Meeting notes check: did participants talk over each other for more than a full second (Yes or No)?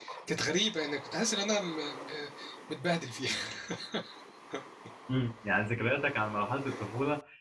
No